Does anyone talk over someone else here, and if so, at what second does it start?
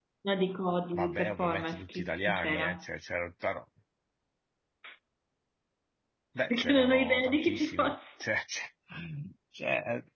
0.9 s

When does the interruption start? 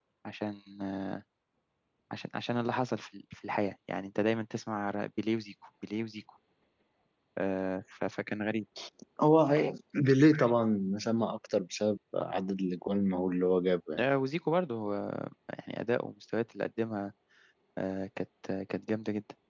none

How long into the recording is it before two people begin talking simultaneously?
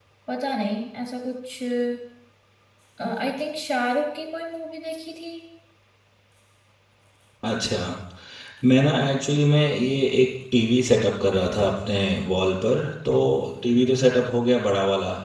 none

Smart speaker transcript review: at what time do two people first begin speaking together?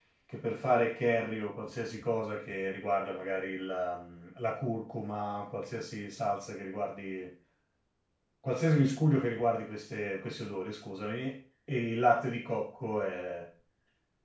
none

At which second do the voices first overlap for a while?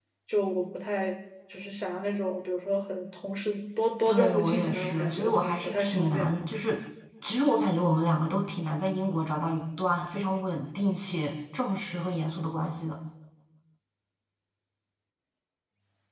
4.0 s

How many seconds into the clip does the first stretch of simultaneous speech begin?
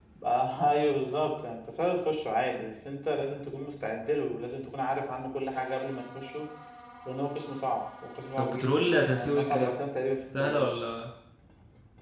8.4 s

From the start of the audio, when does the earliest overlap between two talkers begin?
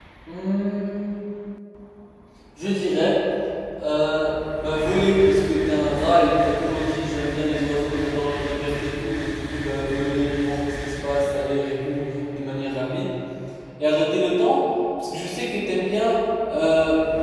none

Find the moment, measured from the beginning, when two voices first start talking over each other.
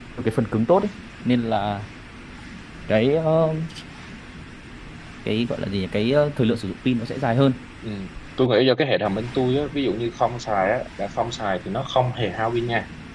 none

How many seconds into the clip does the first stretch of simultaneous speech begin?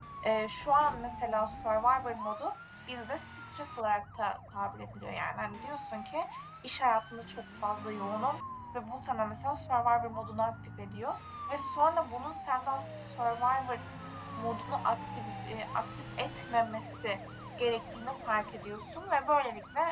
none

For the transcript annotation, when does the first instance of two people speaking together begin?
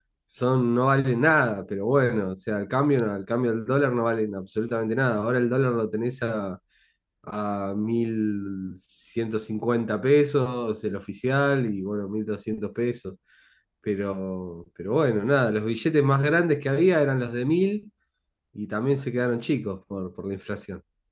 none

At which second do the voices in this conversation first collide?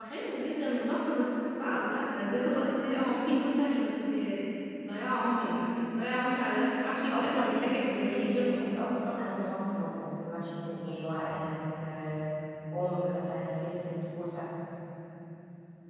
7.1 s

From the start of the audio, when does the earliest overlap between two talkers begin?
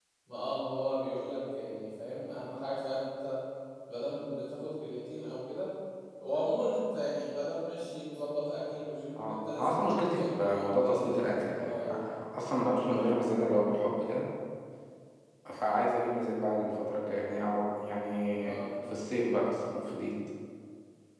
9.2 s

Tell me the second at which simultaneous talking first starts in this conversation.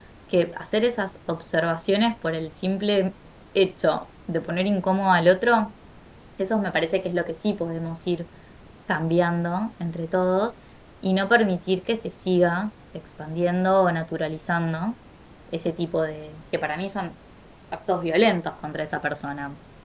none

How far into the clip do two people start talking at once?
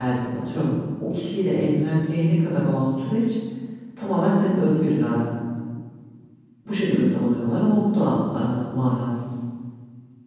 none

